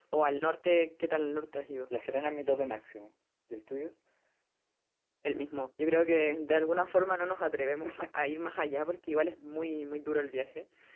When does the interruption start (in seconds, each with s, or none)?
none